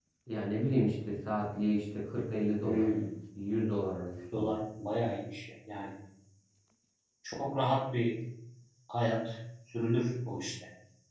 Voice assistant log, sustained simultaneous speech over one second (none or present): none